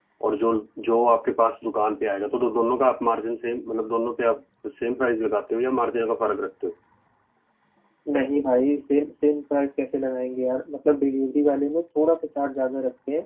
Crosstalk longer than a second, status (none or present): none